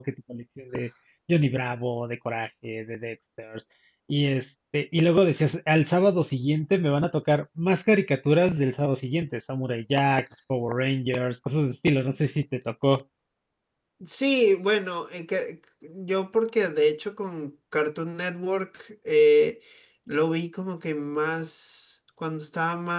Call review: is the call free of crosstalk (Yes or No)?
Yes